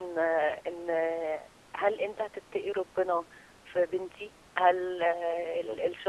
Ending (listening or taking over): listening